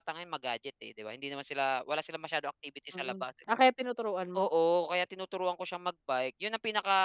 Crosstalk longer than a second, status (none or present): none